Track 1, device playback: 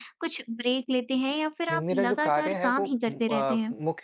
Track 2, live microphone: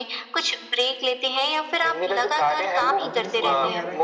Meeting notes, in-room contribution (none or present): present